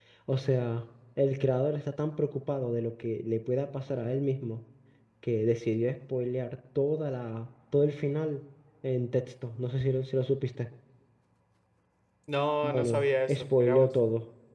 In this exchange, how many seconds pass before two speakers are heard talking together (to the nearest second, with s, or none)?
13 s